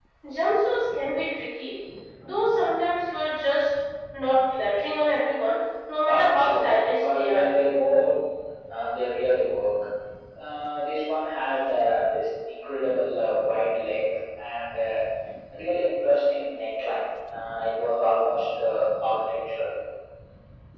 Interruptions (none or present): present